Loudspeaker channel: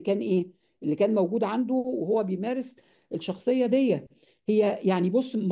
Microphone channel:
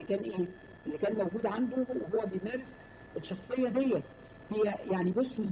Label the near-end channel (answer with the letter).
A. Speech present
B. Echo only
B